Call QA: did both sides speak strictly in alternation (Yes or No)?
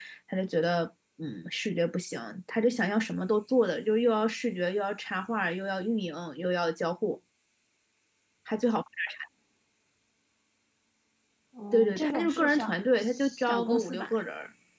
No